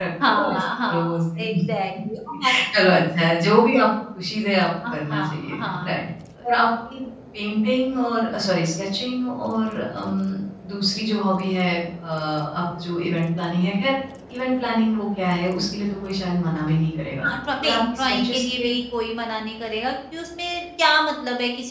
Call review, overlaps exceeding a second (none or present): present